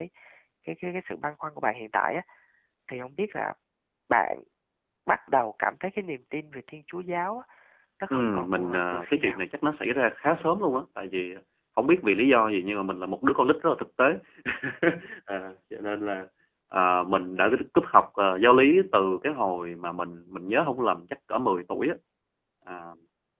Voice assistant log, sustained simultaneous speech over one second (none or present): present